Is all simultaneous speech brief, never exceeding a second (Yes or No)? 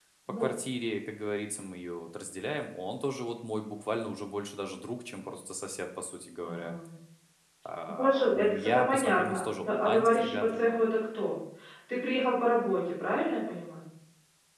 No